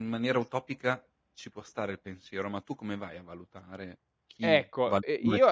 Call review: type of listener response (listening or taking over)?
taking over